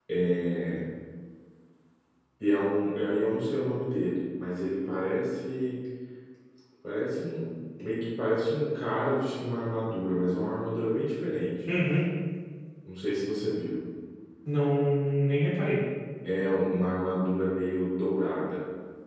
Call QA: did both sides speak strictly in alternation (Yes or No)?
Yes